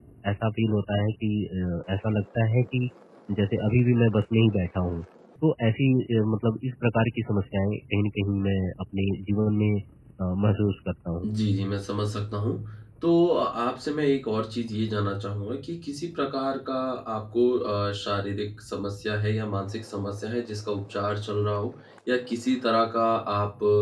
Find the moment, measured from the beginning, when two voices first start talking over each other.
none

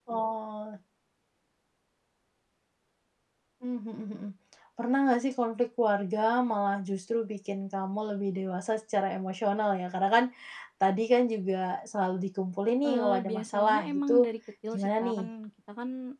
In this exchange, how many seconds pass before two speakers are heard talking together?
12.8 s

